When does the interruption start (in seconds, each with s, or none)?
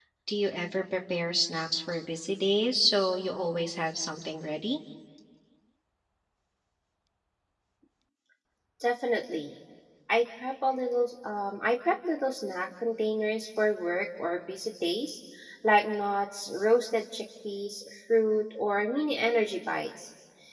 none